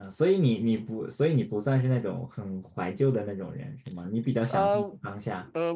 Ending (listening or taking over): taking over